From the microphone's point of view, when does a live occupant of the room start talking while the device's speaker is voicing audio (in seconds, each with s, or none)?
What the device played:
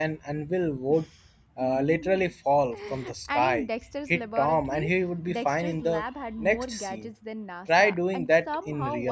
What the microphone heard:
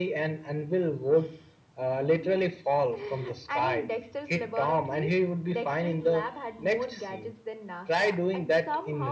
none